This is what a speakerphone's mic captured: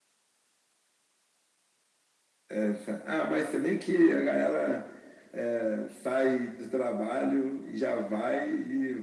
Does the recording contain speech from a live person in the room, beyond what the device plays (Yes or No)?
No